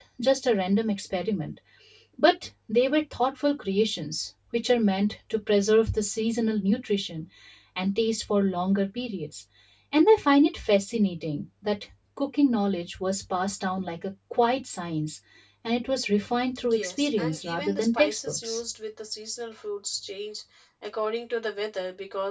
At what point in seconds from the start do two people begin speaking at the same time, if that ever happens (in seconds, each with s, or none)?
16.6 s